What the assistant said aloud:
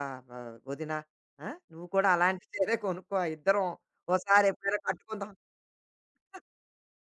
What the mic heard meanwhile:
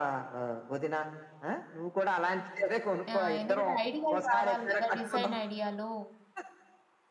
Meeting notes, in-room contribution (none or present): present